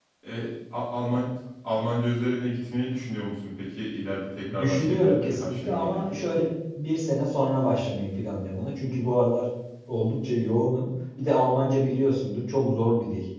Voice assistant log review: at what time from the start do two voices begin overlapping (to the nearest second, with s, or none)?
4 s